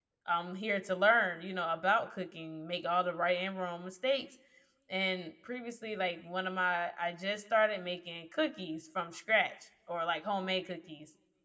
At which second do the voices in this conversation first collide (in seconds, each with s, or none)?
none